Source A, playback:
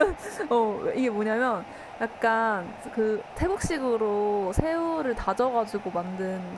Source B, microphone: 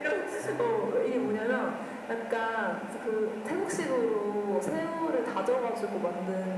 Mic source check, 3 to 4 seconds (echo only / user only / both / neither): echo only